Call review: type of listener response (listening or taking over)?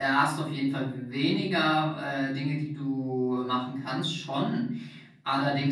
listening